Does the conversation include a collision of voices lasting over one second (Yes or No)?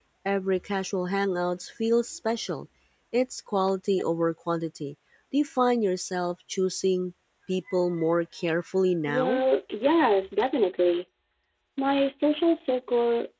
No